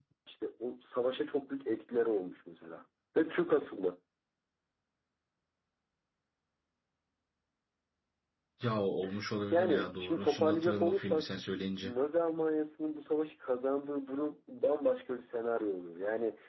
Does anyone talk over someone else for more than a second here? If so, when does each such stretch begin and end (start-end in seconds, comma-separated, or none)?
9.5-11.3